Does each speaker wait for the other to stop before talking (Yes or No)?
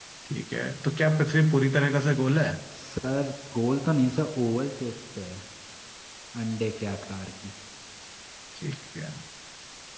Yes